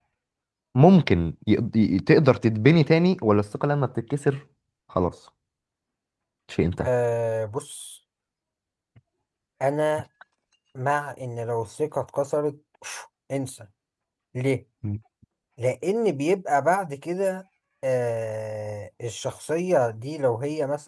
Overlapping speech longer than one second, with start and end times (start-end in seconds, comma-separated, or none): none